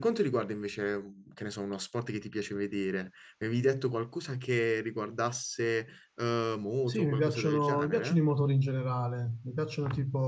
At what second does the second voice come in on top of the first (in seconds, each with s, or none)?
6.9 s